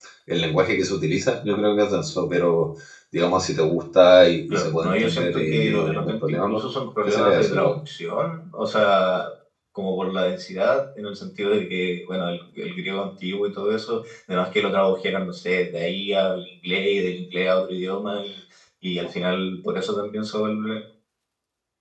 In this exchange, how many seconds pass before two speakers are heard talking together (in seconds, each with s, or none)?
4.5 s